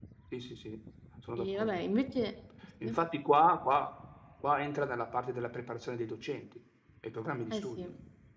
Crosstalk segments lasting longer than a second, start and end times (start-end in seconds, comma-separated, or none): none